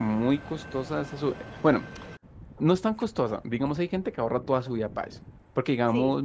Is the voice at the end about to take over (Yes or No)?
No